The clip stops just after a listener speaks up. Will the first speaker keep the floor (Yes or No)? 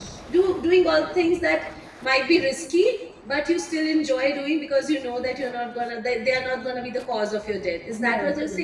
No